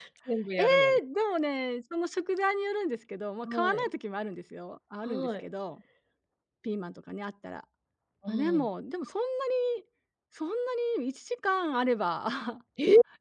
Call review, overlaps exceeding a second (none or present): none